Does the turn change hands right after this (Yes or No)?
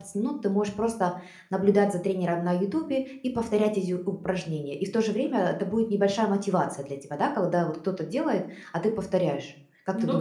Yes